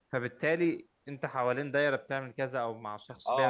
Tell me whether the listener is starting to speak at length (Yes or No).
Yes